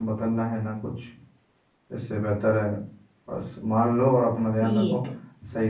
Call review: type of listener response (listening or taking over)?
listening